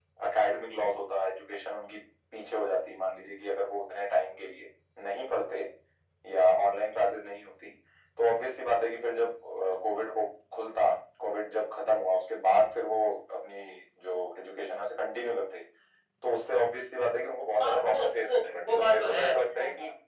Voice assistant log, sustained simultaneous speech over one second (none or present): present